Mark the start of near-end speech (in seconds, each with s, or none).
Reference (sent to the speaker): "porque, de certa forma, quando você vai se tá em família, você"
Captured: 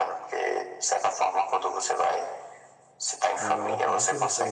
3.3 s